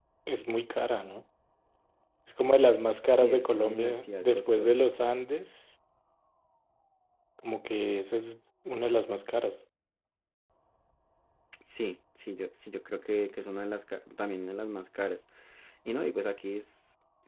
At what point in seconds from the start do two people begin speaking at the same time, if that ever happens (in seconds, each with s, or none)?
3.2 s